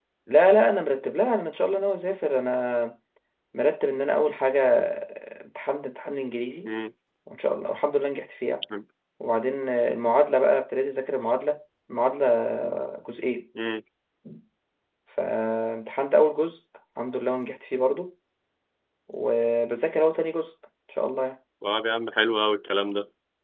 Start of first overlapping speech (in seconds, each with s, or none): none